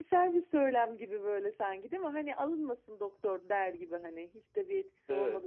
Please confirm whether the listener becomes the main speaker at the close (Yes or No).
Yes